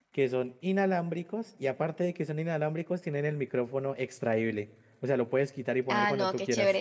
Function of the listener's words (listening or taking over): taking over